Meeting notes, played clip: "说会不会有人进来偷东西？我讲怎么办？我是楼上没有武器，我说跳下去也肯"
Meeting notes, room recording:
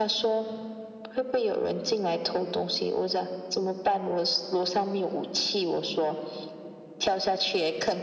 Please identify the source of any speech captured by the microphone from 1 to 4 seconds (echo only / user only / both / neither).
echo only